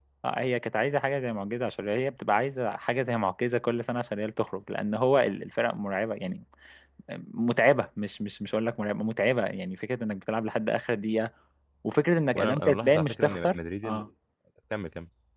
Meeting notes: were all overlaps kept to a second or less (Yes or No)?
No